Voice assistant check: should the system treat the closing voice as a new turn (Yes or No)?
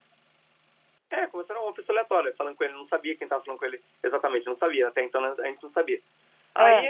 No